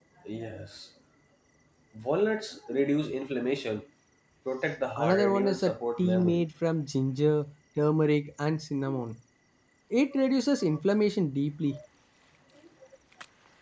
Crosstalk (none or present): present